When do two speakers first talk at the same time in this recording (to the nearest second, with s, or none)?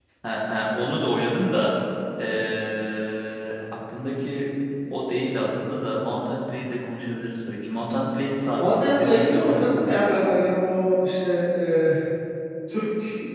9 s